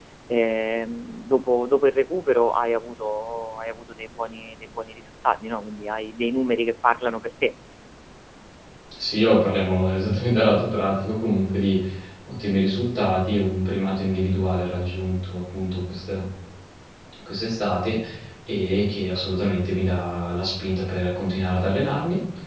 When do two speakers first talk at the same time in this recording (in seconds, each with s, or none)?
none